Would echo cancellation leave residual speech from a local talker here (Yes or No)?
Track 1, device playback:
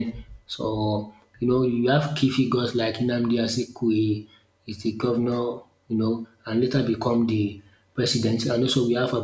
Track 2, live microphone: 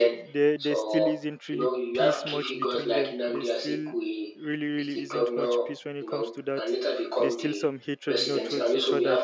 Yes